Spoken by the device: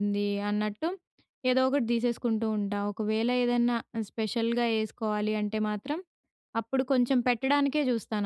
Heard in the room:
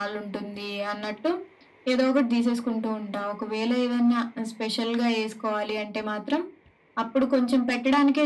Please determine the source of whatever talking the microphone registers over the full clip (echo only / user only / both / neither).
echo only